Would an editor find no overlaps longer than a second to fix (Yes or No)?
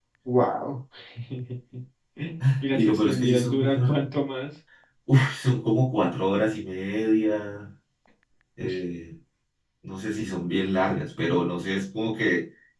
No